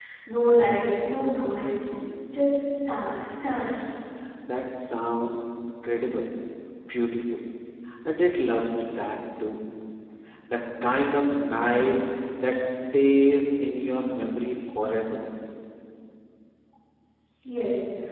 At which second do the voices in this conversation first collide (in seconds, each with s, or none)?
none